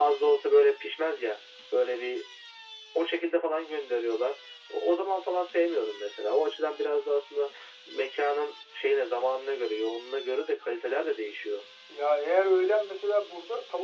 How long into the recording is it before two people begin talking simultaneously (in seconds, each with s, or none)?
none